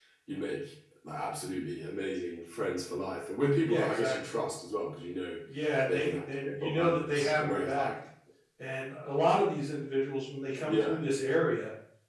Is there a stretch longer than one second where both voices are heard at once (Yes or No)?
Yes